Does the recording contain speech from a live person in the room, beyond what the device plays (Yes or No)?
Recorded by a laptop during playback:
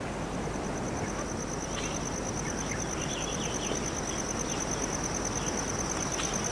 No